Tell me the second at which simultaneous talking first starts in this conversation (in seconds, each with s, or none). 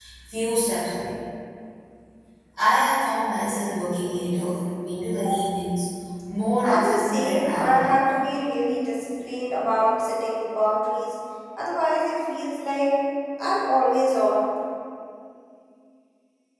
6.6 s